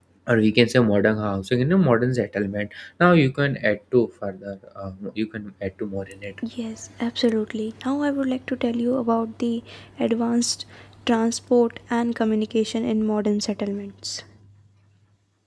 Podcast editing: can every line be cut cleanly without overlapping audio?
Yes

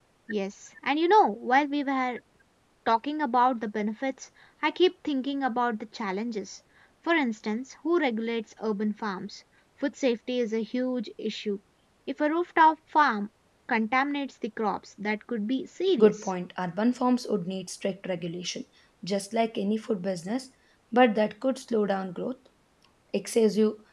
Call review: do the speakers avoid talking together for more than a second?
Yes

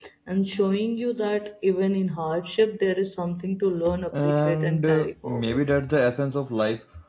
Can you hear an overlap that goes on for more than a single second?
Yes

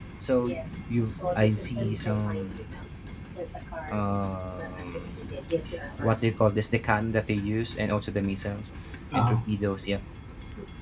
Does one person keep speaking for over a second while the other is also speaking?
Yes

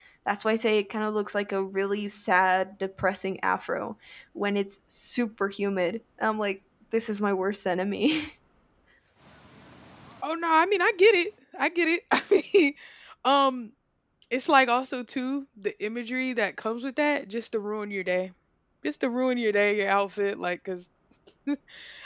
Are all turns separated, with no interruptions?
Yes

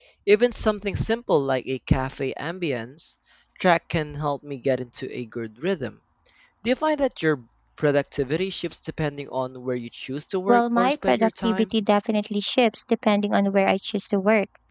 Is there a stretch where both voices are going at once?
Yes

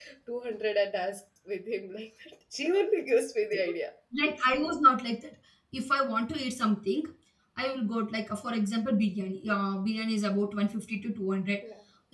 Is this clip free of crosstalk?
Yes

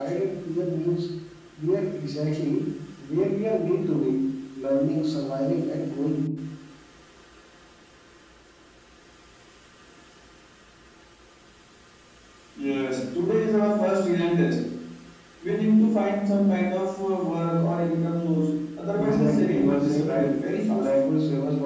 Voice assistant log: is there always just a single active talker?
No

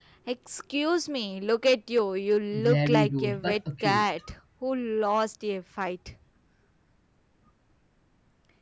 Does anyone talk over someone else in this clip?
Yes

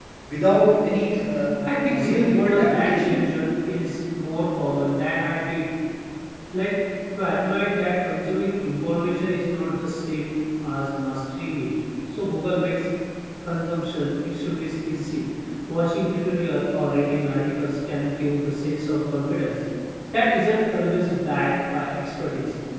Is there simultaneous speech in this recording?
Yes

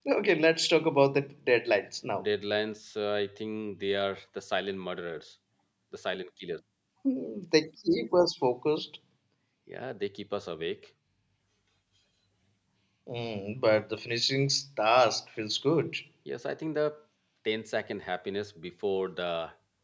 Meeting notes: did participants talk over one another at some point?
No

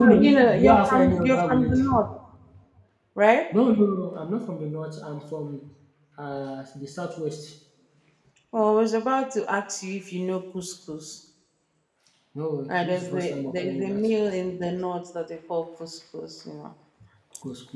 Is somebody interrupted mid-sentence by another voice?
Yes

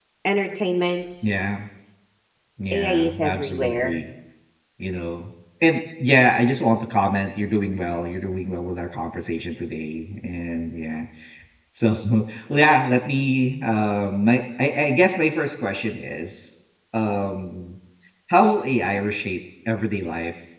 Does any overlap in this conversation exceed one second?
Yes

